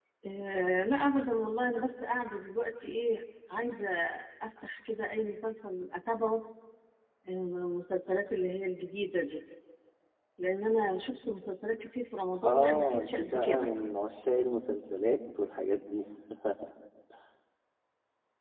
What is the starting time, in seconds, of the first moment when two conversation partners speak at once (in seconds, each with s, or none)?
12.4 s